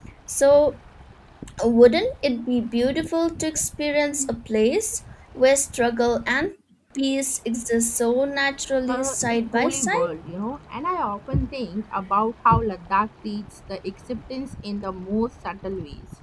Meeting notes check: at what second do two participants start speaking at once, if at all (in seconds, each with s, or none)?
8.9 s